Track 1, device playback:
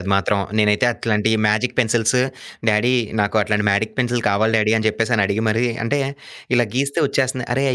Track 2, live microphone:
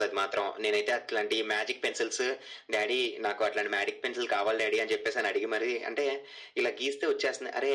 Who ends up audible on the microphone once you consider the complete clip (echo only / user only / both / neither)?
echo only